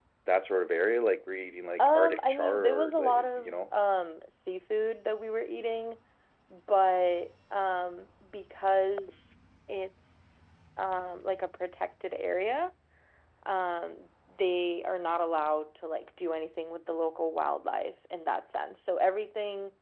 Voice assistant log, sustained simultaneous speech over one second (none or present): present